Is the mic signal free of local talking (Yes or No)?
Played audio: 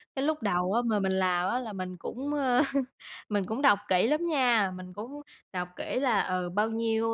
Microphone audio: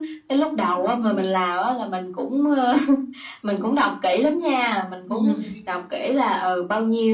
No